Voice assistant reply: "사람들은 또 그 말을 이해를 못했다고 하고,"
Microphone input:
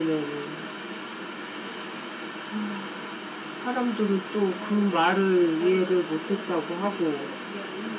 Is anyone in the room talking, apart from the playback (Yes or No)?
Yes